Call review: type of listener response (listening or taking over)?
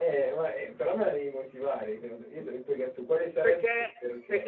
taking over